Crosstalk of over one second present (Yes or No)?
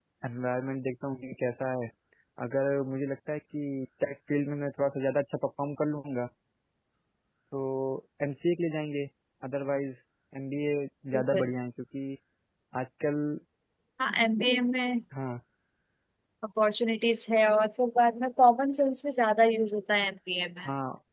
No